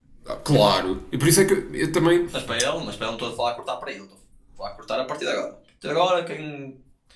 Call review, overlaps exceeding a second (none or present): none